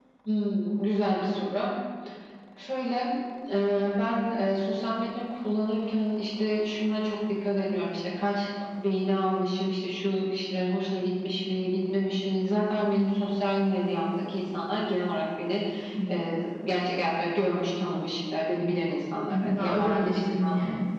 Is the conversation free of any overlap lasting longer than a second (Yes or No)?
No